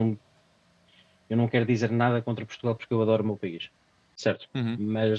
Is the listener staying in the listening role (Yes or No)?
Yes